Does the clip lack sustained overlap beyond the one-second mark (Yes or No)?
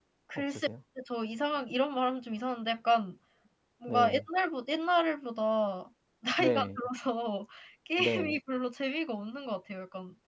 Yes